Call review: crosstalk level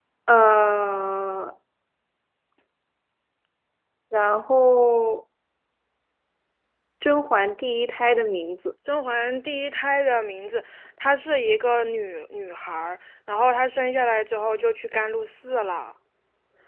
none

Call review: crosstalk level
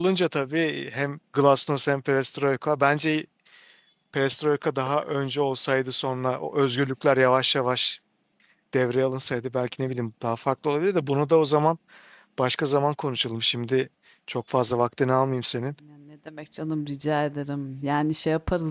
none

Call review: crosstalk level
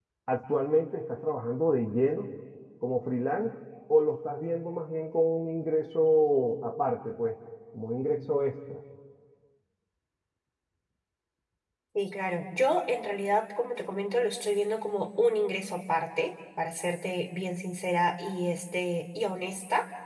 none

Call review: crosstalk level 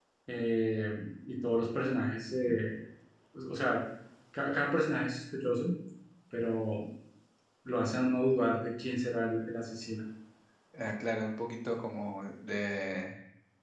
none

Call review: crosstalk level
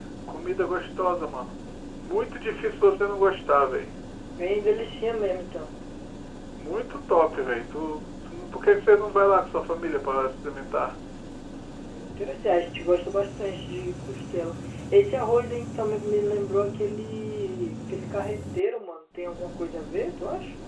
none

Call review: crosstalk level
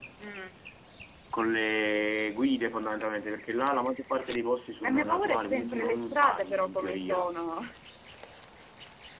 present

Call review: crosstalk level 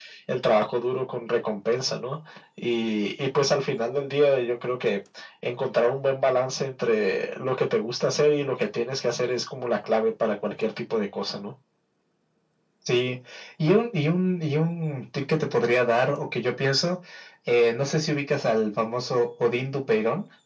none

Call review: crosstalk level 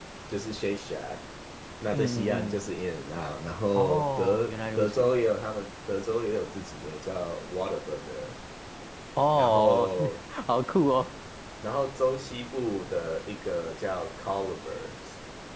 present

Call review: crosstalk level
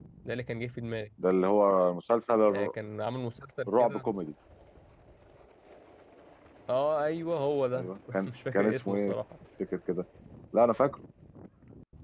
present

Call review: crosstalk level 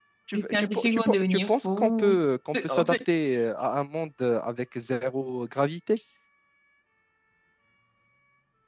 present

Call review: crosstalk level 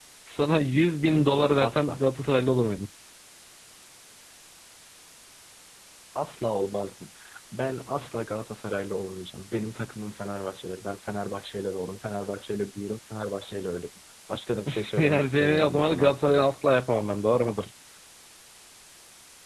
present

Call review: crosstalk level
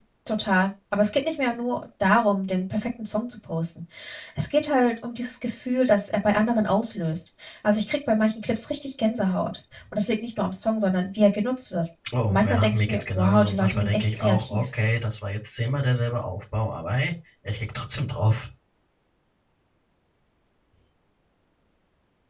present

